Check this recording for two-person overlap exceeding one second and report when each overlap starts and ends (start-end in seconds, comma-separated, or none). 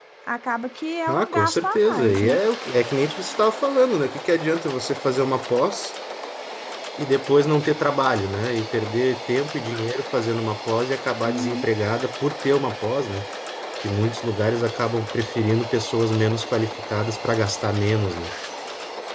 1.1-2.4